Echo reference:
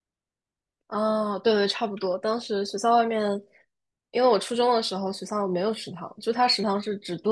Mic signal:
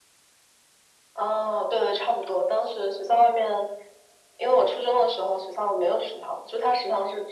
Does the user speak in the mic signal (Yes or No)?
No